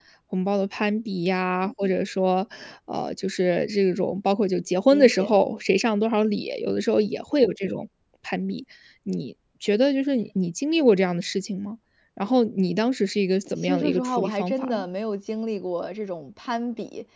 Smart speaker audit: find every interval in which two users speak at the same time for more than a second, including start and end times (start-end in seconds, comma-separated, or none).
13.6-14.8